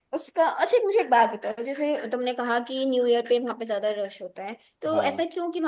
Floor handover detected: No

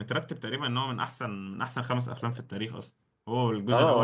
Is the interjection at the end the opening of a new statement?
Yes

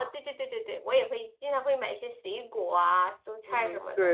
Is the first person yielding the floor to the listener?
Yes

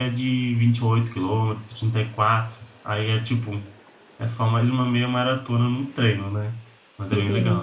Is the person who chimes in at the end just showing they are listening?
No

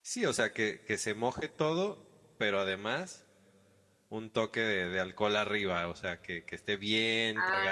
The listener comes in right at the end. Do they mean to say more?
Yes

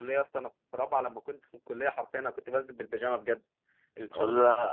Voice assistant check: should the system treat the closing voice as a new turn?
No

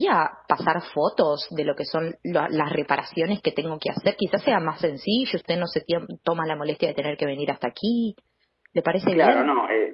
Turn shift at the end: Yes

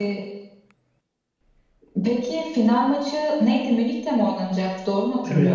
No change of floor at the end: No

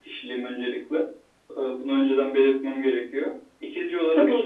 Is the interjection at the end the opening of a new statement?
No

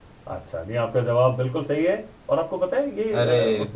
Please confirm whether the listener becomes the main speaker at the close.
No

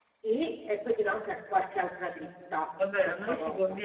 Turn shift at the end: Yes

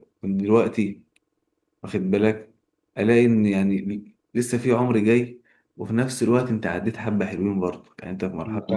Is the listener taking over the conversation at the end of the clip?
Yes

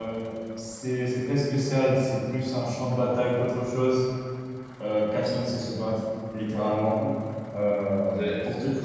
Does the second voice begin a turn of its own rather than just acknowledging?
Yes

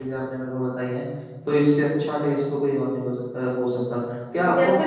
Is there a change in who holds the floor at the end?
Yes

